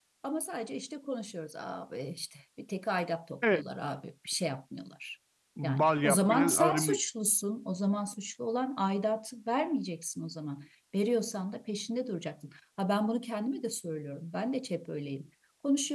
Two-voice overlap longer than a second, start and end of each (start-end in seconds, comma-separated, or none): 5.6-7.0